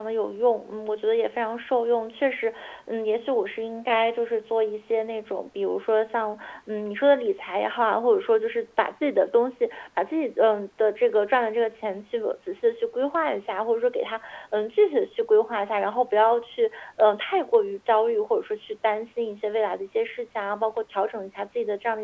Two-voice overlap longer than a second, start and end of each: none

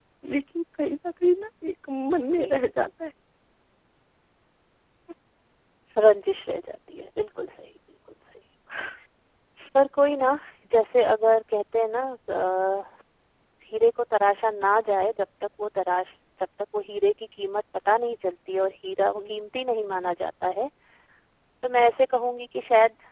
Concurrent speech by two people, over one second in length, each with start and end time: none

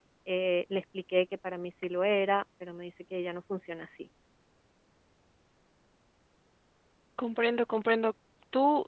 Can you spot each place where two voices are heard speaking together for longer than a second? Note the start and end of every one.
none

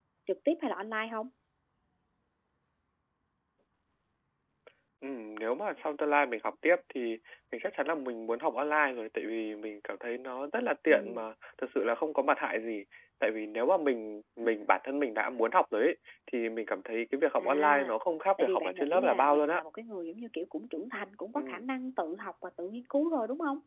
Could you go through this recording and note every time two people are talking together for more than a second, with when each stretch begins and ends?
18.4-19.6

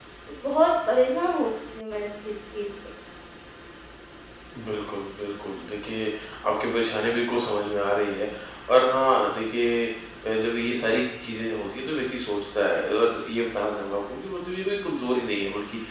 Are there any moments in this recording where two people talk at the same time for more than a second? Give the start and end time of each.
none

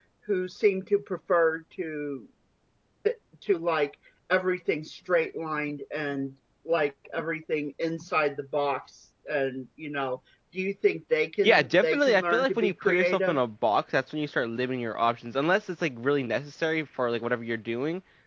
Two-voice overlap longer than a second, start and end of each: 11.4-13.3

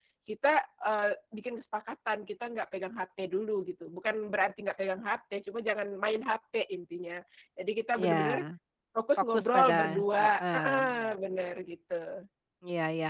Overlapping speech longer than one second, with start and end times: 9.3-11.1

